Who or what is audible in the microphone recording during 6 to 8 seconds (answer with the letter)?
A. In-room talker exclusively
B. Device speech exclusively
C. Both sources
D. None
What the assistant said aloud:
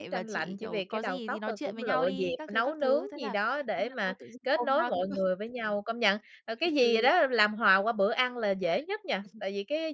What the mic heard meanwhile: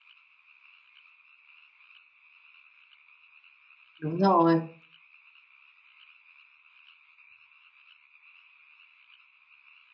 D